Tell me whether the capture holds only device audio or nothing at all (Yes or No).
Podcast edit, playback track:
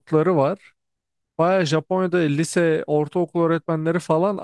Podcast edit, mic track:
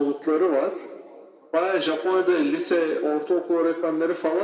Yes